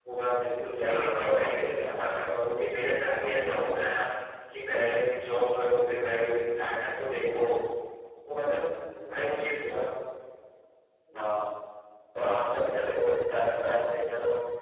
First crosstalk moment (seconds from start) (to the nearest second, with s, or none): 1 s